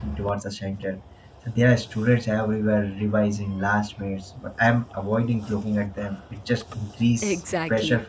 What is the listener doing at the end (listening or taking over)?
taking over